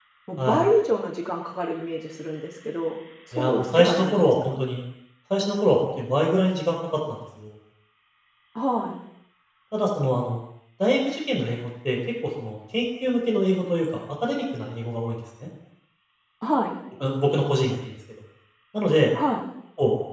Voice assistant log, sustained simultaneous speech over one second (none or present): present